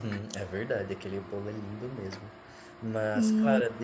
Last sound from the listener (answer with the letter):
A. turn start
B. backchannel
B